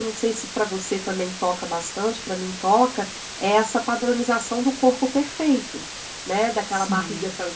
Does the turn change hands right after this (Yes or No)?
No